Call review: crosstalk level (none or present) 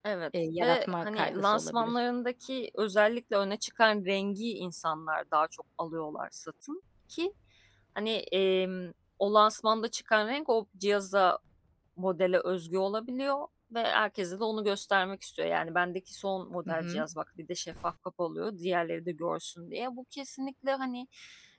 present